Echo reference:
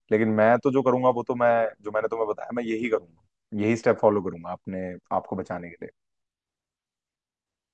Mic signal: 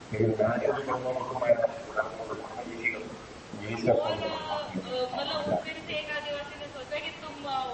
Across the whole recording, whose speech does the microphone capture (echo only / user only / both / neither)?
both